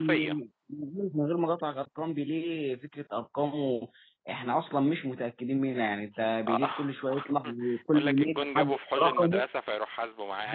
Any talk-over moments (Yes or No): Yes